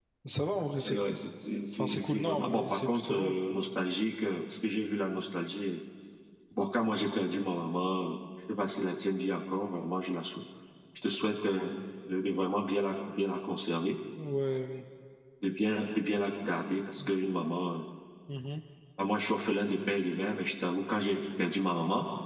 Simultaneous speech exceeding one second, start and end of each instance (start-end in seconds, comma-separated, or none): 1.7-3.3